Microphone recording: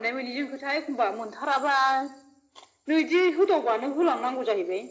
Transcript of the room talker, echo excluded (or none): none